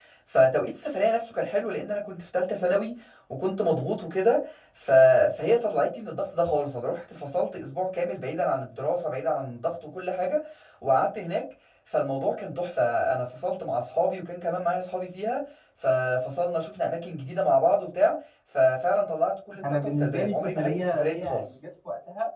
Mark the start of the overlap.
19.8 s

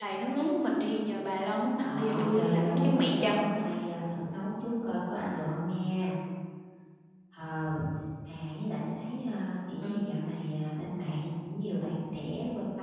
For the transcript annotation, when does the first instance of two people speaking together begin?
1.8 s

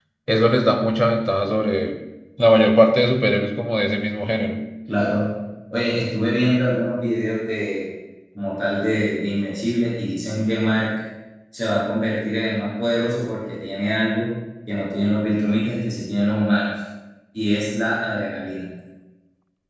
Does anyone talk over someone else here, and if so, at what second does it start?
none

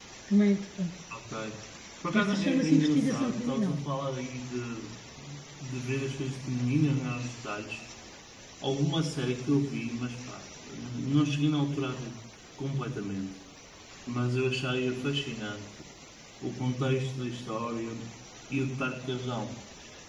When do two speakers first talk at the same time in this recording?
2.1 s

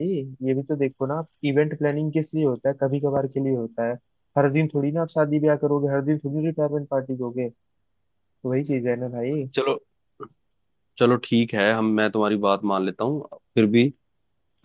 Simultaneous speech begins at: none

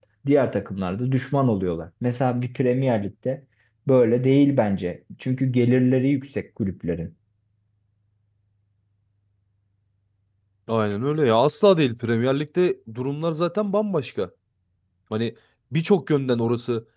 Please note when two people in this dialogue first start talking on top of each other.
none

